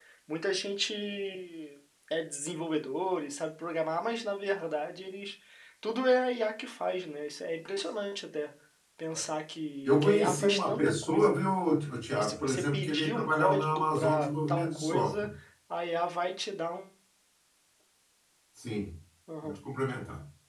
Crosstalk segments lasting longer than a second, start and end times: 9.8-11.4, 12.2-15.3

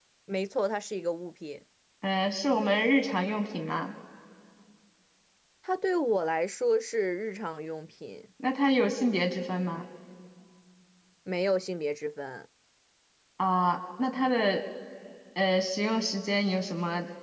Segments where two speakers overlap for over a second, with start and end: none

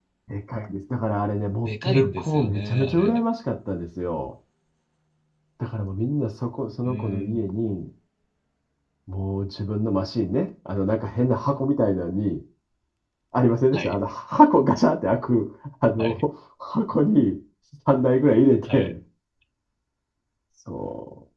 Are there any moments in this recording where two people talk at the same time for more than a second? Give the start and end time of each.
1.7-3.2

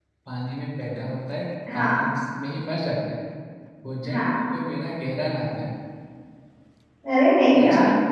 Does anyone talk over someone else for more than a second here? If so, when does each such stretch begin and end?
none

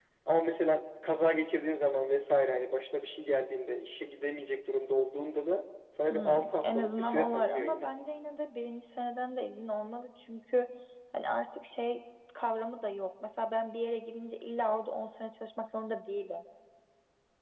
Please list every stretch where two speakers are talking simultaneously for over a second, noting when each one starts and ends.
6.1-7.9

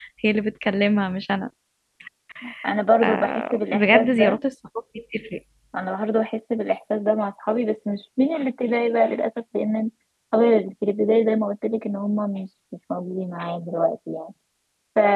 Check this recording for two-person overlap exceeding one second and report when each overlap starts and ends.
3.0-4.4

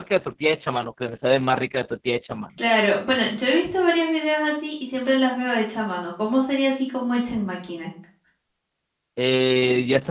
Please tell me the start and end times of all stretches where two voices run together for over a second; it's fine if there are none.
none

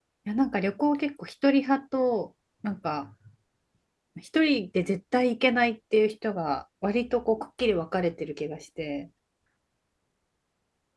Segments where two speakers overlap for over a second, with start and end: none

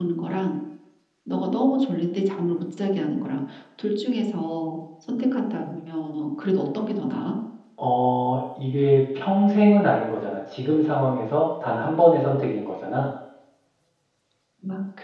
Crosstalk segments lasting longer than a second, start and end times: none

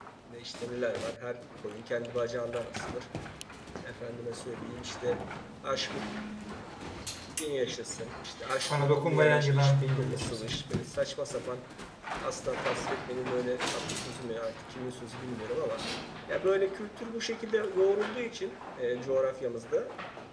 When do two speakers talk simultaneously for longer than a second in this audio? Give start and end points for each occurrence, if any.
8.7-10.6

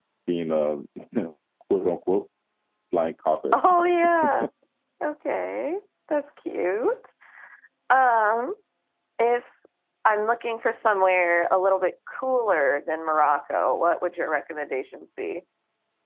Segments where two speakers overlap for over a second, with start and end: none

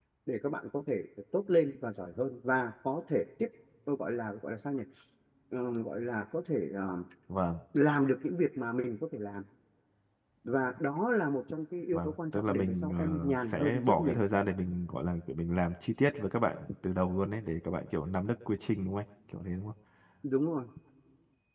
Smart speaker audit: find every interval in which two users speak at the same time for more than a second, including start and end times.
11.9-14.2

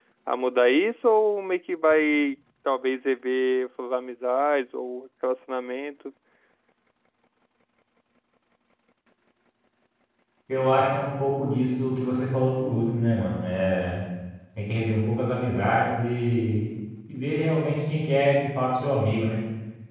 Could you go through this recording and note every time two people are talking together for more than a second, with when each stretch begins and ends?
none

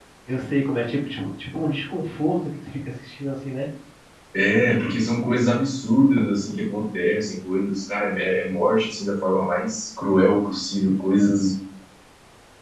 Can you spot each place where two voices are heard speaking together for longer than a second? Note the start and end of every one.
none

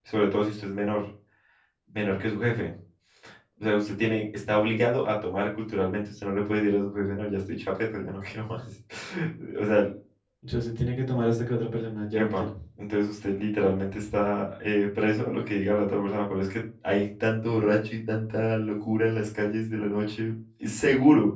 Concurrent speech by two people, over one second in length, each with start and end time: none

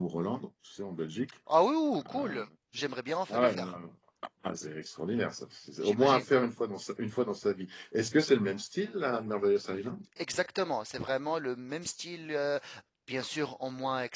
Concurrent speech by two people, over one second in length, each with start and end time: none

